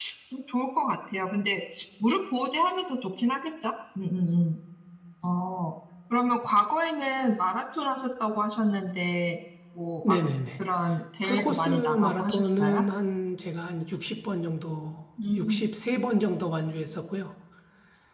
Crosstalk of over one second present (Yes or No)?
Yes